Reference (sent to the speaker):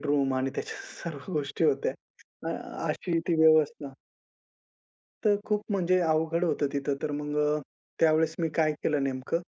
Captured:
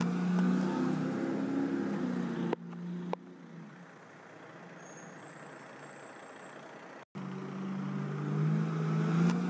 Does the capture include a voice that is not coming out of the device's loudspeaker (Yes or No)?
No